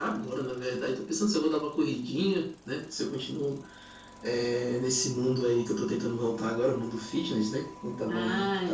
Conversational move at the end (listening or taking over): taking over